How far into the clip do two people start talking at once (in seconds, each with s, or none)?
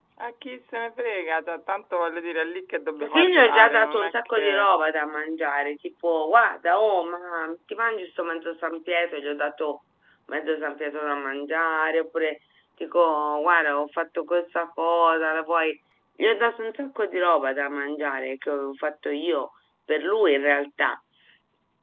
3.0 s